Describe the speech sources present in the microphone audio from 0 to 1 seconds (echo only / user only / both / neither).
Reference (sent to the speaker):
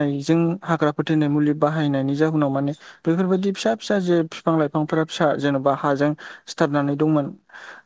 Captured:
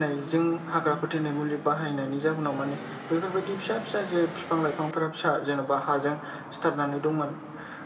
echo only